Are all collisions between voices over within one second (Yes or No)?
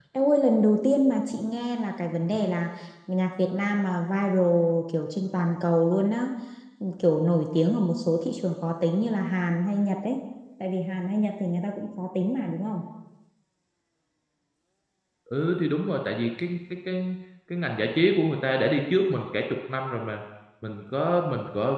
Yes